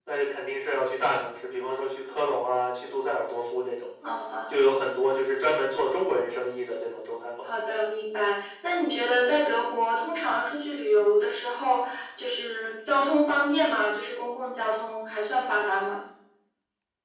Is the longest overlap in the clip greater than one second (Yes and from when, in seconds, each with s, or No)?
No